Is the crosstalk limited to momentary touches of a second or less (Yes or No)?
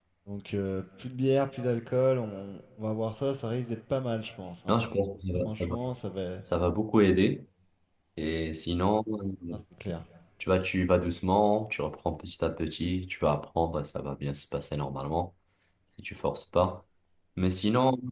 Yes